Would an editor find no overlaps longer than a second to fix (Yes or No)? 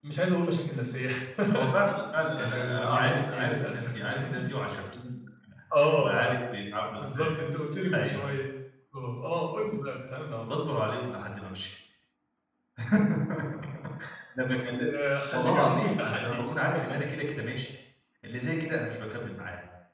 No